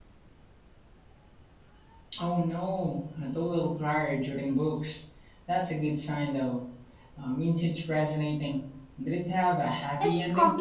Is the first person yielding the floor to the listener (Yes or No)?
Yes